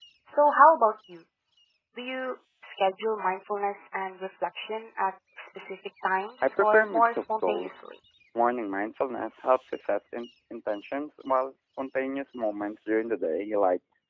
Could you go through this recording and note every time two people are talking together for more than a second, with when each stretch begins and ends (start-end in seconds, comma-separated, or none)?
6.4-7.7